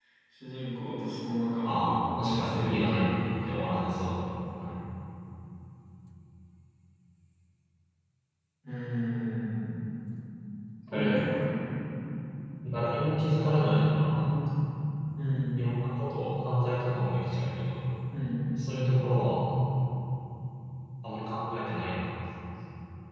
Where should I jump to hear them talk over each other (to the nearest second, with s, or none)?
2 s